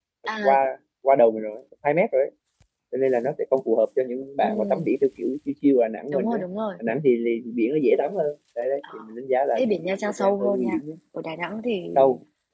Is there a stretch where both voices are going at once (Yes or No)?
Yes